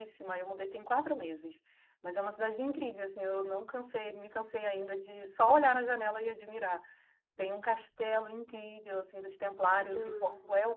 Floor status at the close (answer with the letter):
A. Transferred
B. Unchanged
B